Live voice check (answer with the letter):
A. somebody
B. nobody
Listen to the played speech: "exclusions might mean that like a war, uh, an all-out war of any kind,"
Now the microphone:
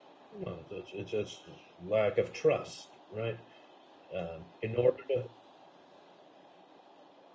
A